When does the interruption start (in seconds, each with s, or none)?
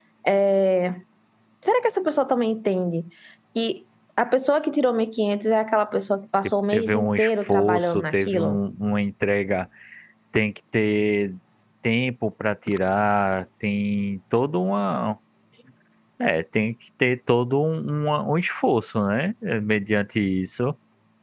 6.7 s